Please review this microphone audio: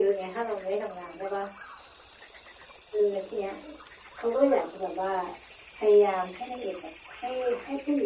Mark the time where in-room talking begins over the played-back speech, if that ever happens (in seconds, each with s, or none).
none